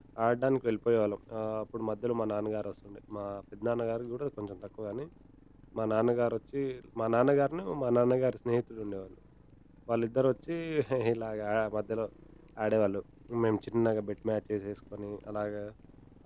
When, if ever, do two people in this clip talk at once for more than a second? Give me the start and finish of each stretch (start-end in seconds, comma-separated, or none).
none